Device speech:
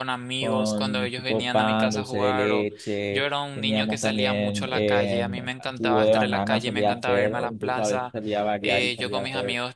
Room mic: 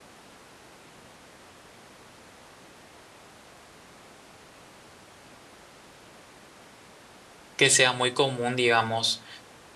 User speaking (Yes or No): Yes